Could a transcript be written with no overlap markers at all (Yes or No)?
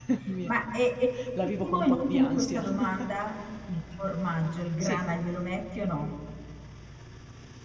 No